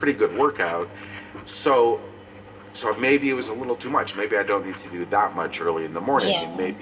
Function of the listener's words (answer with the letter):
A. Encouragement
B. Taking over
A